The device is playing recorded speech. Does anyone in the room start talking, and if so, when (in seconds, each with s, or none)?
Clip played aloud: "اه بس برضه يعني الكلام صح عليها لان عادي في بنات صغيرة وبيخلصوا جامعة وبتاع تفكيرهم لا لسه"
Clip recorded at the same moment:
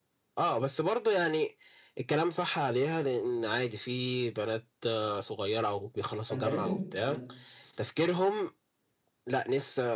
6.3 s